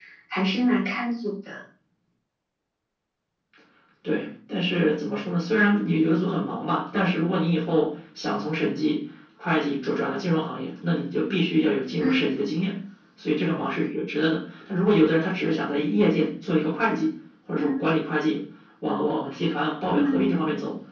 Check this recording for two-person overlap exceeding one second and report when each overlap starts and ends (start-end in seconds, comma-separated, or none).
none